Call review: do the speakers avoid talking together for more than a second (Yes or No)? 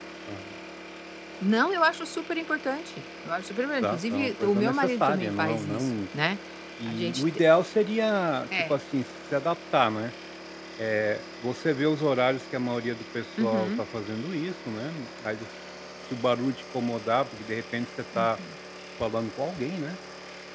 No